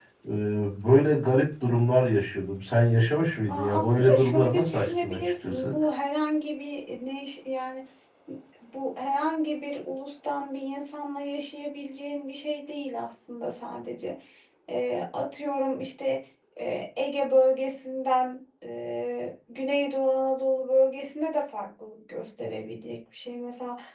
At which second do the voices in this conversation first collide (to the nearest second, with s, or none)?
3 s